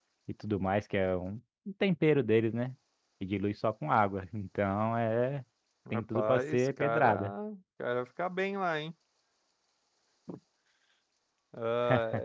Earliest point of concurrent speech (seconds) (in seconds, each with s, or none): 5.9 s